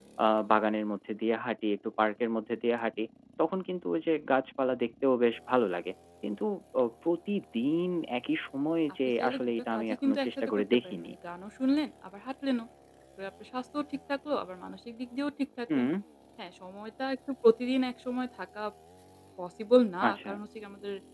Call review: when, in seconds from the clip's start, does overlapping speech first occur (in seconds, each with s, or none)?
9.2 s